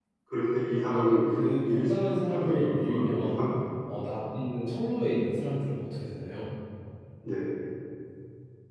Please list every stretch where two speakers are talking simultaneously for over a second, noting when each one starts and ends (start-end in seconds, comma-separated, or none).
0.7-3.4